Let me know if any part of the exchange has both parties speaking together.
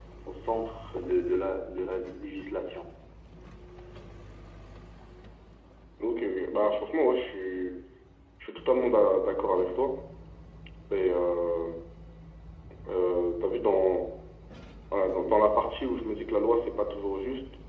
No

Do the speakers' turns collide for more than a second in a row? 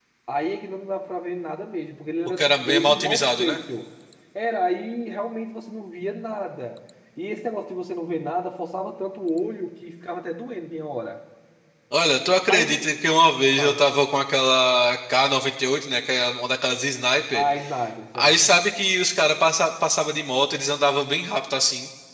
Yes, from 2.4 s

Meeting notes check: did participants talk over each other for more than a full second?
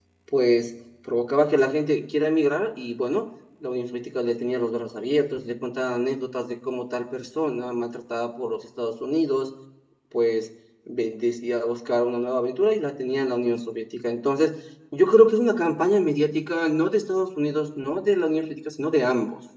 No

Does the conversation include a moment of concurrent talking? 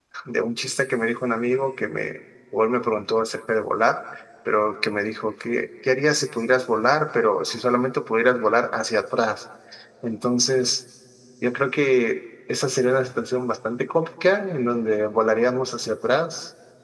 No

